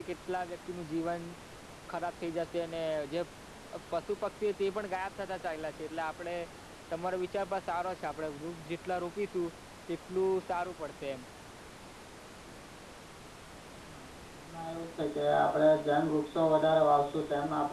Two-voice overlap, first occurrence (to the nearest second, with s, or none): none